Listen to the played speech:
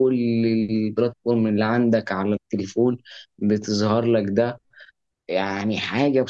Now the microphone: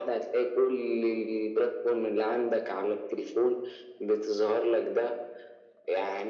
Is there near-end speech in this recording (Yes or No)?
No